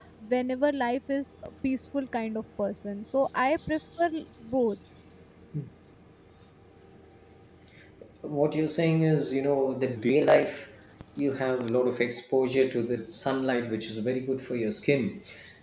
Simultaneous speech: No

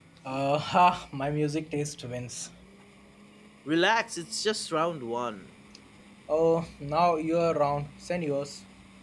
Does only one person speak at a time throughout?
Yes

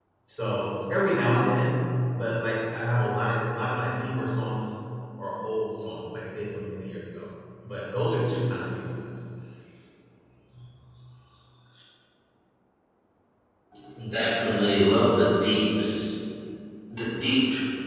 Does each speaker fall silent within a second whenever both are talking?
Yes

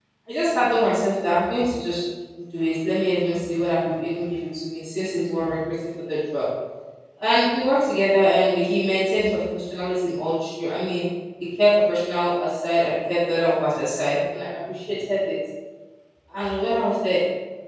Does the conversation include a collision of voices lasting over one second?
No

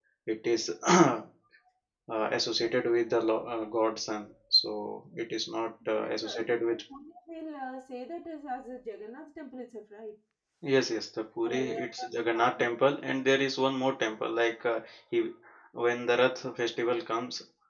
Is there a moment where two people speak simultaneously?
Yes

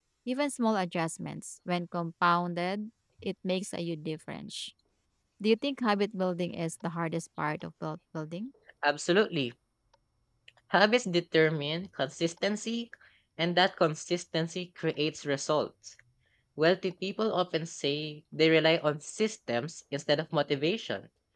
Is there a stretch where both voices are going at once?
No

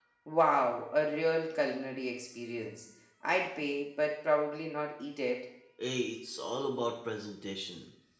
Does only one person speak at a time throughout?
Yes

